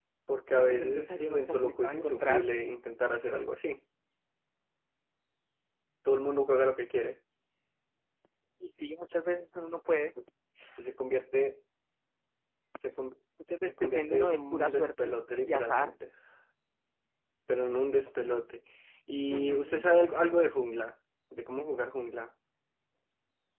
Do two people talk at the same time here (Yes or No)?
Yes